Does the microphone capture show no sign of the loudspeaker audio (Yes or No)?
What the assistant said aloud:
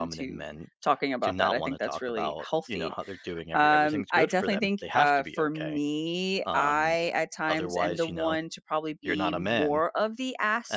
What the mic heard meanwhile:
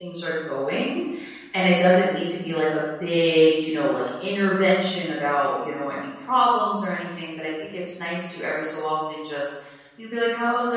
Yes